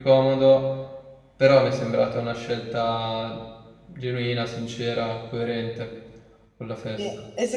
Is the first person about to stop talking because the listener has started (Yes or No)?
Yes